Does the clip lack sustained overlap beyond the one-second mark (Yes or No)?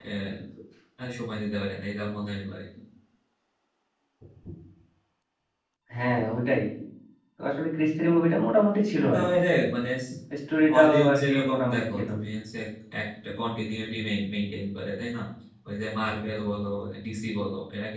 No